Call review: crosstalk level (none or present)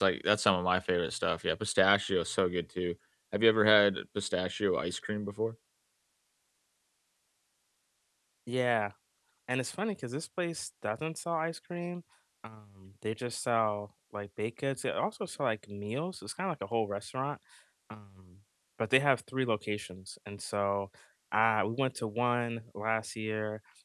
none